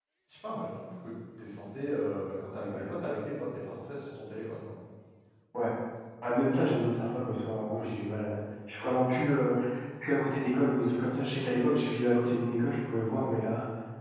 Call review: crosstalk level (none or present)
none